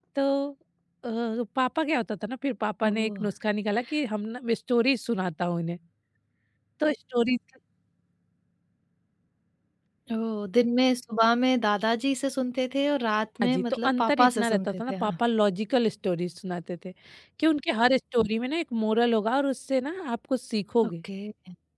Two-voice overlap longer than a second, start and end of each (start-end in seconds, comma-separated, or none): 13.4-15.1